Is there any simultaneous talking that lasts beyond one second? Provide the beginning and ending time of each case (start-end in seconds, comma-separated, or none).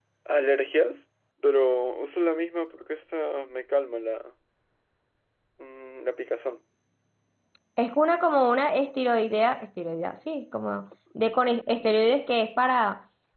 none